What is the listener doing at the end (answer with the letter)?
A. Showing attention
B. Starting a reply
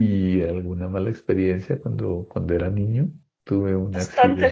B